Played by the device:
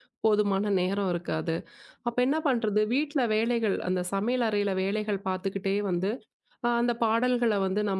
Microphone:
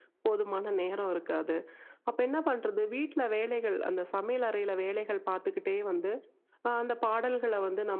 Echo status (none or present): present